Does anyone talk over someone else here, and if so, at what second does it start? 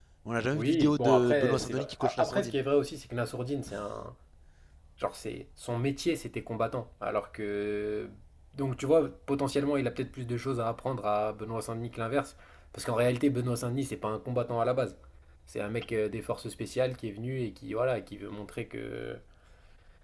0.5 s

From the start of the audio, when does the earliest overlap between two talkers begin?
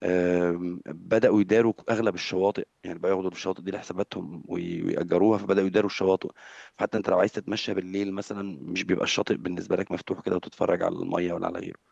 none

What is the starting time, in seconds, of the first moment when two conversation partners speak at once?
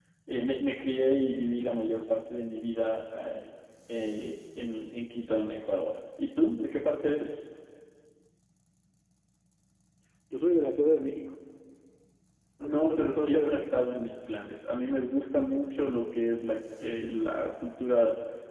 12.6 s

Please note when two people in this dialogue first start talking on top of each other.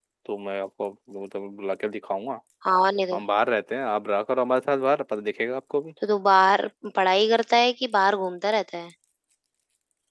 none

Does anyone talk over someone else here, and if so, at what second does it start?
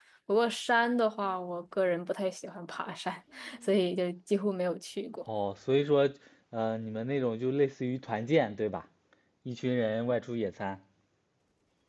none

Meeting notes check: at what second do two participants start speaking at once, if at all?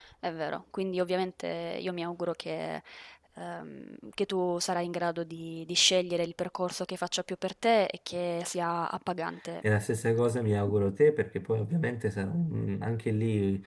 none

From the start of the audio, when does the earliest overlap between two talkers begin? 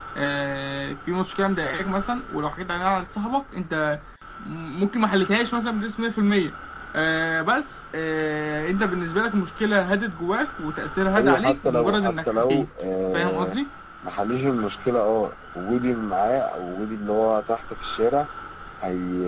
11.2 s

